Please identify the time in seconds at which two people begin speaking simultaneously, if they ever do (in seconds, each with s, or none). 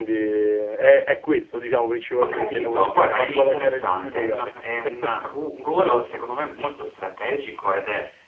2.2 s